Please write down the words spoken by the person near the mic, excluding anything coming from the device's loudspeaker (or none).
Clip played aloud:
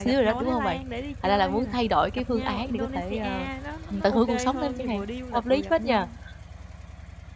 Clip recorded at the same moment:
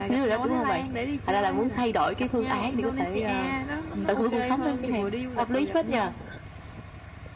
none